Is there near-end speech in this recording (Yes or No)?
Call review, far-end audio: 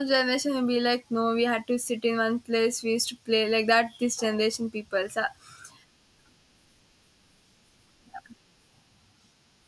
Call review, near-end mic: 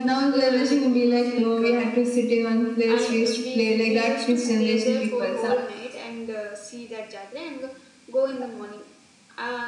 Yes